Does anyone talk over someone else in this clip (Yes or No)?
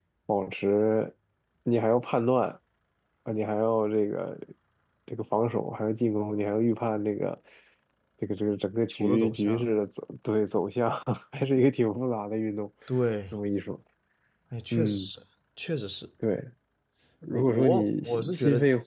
Yes